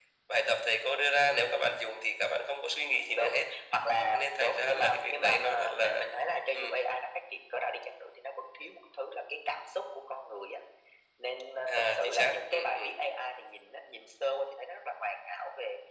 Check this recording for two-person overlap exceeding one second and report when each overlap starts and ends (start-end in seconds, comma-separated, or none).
4.1-6.0, 11.7-13.0